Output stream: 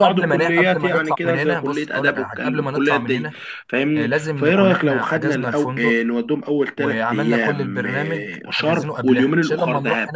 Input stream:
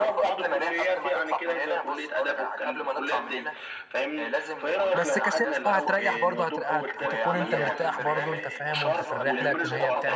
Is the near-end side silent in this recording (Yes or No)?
No